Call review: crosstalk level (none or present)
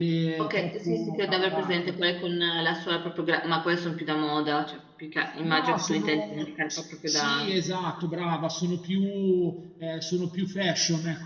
present